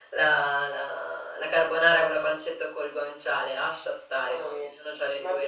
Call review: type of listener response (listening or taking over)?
taking over